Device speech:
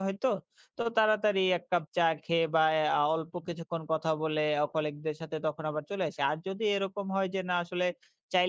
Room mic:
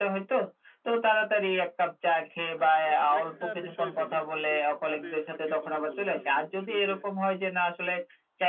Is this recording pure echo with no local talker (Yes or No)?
No